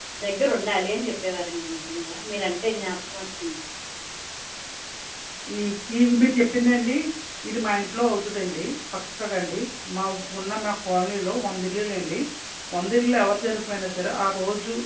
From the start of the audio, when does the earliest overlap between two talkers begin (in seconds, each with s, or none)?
none